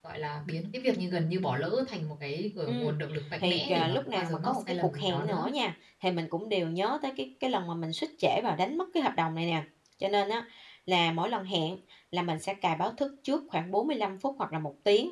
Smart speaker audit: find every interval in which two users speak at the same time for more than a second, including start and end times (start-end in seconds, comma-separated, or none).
3.4-5.5